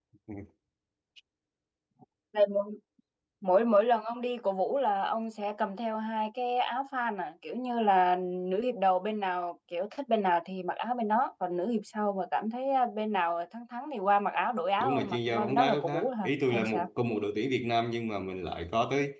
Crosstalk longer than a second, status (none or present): present